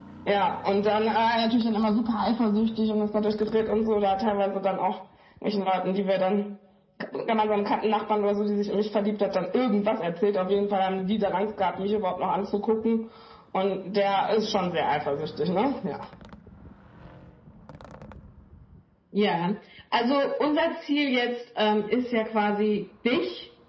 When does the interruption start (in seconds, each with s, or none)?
none